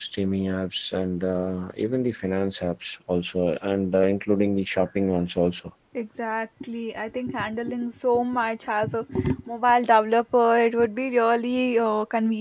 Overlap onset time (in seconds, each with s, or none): none